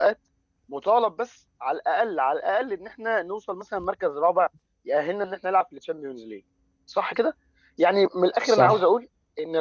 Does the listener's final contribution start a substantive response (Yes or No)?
No